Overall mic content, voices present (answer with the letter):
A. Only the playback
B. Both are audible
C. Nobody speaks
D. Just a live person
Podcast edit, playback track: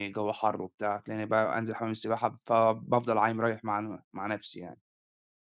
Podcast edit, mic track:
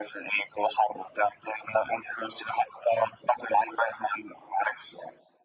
A